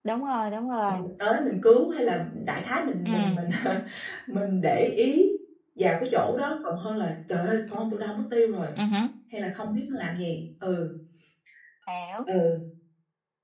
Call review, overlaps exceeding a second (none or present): none